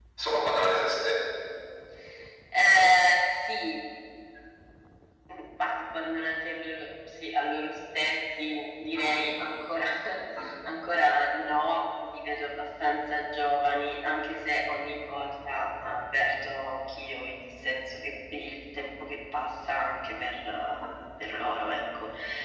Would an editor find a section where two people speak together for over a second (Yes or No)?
No